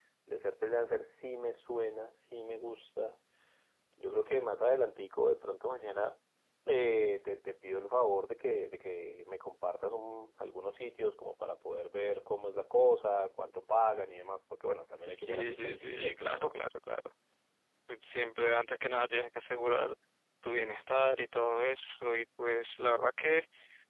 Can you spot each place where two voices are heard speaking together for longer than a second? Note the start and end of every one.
15.1-16.5

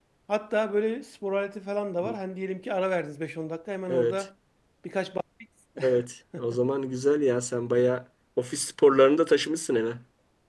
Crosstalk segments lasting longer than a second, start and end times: none

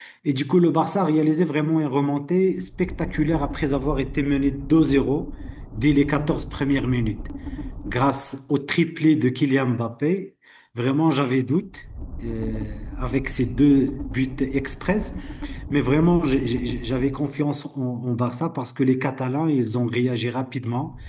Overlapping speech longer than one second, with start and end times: none

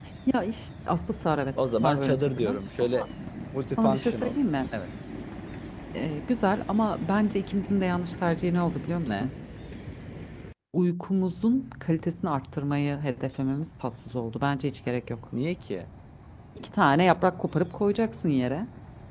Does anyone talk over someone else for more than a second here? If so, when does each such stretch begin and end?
1.8-3.0

